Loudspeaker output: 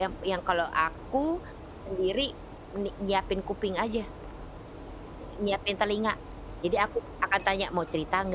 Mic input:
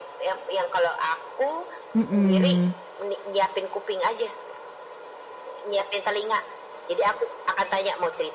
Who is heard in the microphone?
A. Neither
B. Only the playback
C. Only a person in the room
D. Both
D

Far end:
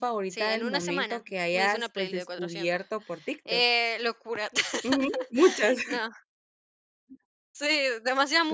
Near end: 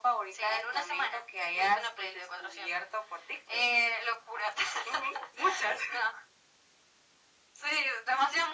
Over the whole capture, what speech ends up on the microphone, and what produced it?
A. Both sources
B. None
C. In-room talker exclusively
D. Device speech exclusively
D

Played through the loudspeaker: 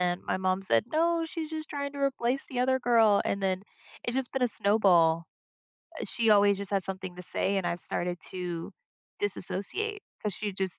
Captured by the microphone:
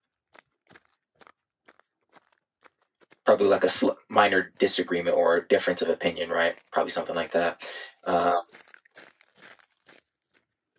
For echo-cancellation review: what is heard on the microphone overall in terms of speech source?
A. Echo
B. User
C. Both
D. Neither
B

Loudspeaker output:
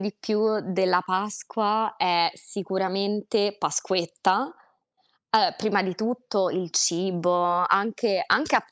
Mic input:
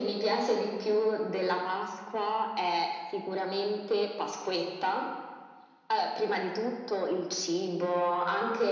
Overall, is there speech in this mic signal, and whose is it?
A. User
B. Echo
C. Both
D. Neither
B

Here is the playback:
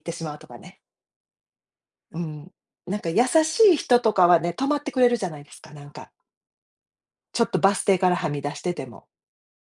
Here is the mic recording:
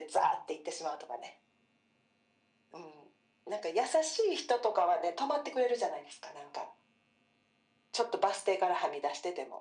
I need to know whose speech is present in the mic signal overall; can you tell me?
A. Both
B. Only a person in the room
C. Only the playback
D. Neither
C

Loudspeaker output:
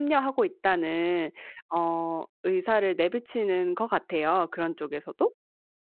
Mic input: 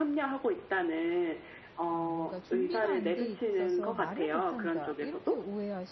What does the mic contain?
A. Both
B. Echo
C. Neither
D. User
A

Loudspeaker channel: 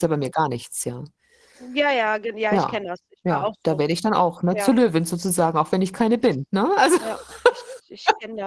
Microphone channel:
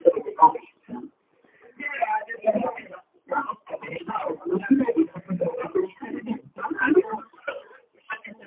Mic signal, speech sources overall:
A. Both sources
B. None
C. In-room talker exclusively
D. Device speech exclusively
D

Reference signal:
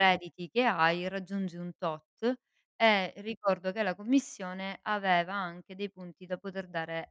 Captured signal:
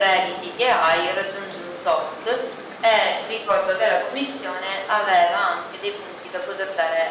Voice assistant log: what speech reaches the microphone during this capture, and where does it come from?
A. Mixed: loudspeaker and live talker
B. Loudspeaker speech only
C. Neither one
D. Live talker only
B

